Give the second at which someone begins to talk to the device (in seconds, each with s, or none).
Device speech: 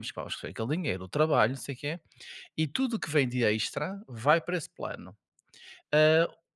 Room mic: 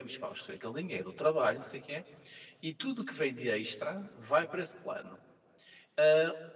none